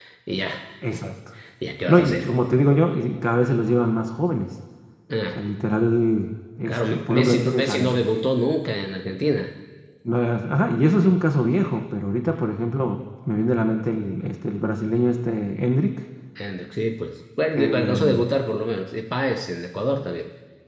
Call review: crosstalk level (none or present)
present